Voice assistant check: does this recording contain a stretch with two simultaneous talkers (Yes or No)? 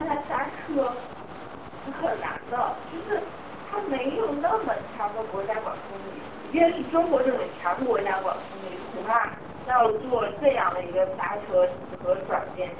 No